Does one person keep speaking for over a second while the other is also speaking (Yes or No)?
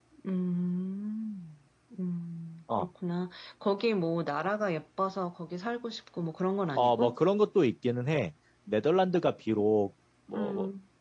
No